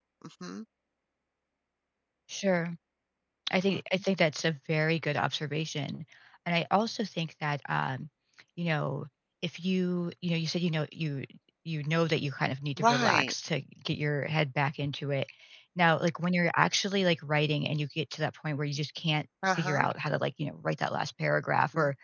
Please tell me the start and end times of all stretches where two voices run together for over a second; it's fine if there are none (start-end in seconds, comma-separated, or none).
none